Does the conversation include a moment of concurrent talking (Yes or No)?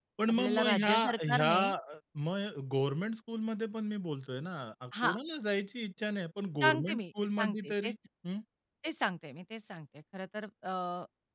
Yes